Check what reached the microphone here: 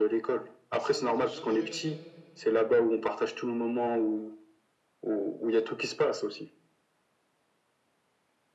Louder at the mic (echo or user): echo